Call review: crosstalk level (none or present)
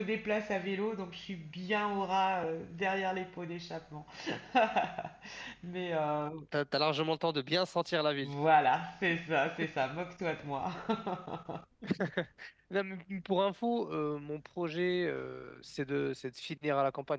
none